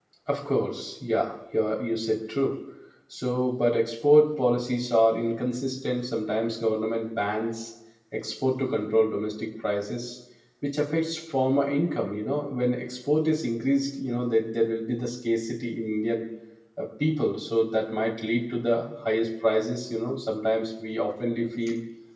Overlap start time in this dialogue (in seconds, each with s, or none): none